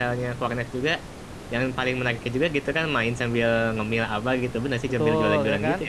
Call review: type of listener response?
taking over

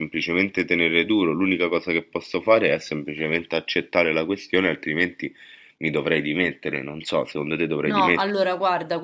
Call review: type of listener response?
taking over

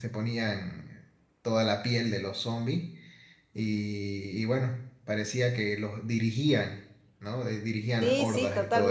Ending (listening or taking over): taking over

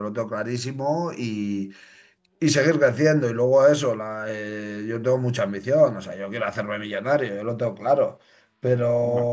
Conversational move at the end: listening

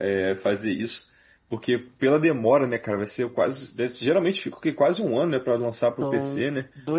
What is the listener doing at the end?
taking over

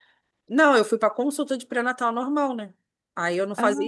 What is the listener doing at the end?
listening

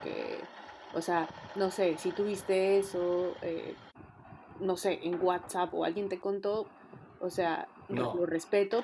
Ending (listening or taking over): listening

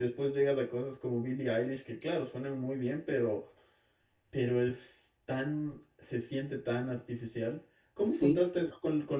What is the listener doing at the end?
listening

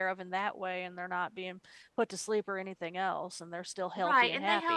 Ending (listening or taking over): taking over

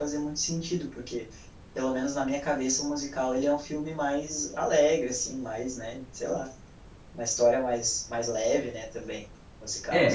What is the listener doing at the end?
taking over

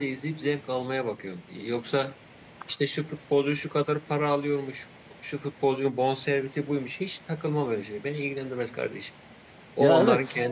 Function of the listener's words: listening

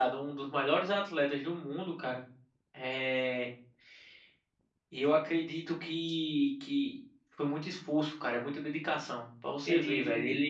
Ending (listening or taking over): listening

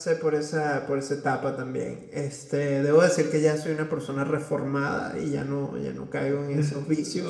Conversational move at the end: taking over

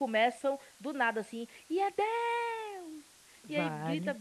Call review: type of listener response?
listening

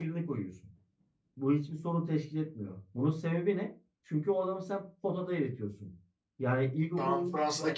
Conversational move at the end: taking over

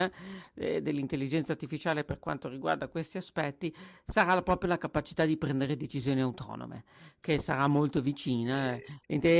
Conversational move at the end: listening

